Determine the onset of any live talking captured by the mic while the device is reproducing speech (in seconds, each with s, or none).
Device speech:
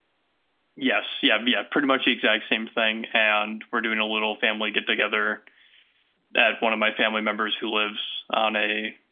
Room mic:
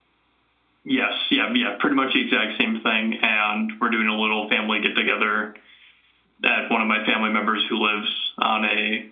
none